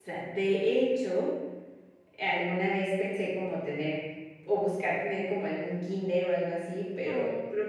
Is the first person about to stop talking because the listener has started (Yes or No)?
No